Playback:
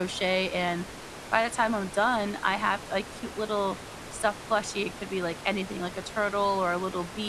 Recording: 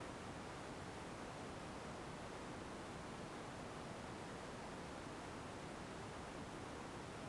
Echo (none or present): none